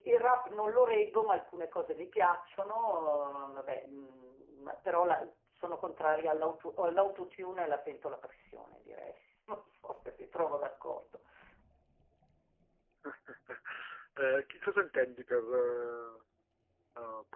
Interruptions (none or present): none